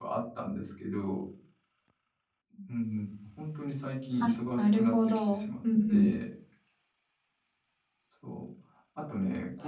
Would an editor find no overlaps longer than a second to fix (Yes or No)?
No